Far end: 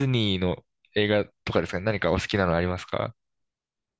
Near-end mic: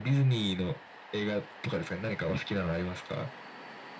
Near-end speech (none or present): none